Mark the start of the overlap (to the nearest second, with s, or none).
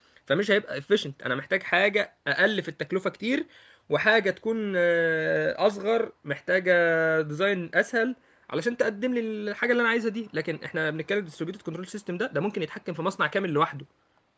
none